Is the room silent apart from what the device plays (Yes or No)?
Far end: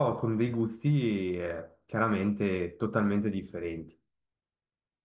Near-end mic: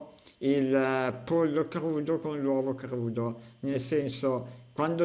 No